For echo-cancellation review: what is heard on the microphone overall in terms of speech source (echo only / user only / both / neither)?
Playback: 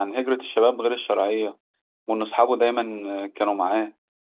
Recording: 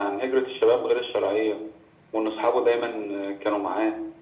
echo only